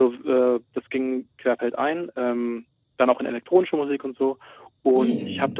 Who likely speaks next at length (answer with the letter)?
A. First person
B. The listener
A